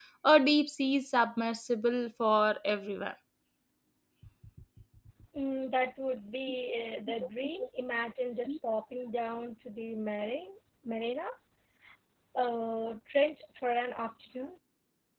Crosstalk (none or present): none